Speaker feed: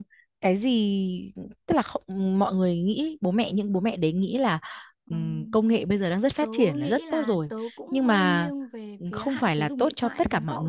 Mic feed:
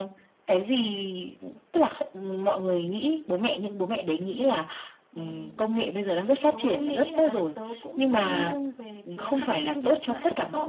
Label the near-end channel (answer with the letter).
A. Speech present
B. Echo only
B